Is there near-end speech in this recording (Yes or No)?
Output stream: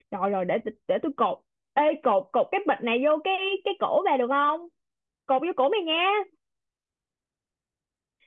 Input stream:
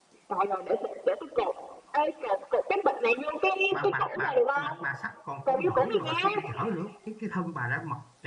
Yes